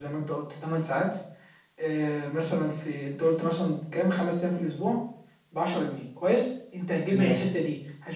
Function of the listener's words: listening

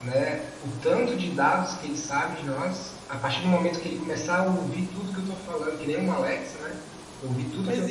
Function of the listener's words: taking over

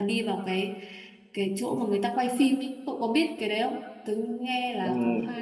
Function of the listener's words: taking over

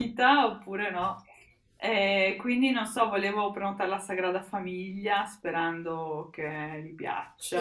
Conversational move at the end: taking over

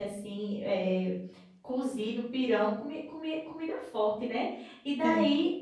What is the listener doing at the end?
listening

